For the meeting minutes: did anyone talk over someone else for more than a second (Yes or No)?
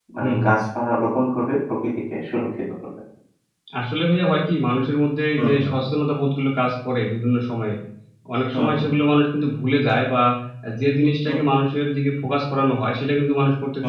No